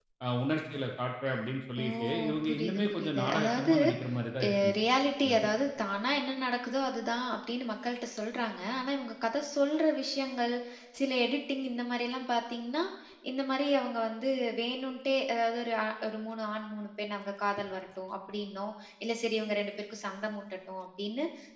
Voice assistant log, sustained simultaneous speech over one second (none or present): present